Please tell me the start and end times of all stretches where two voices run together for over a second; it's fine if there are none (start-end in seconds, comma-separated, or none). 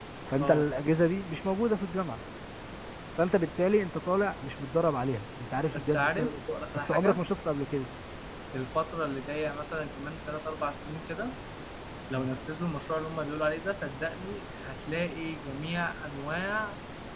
5.7-7.2